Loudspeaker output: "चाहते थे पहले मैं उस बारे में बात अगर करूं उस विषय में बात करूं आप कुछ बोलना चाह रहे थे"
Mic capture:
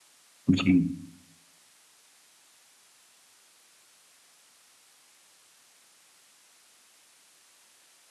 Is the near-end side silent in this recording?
No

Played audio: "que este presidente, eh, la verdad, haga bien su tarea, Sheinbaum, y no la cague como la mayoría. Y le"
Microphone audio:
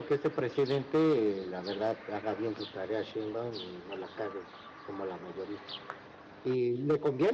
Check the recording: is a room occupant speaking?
No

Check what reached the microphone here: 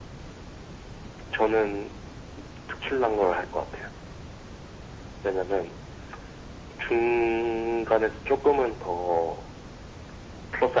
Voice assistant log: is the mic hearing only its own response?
Yes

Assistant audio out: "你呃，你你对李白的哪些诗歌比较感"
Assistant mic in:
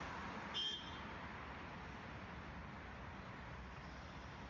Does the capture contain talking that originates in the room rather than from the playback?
No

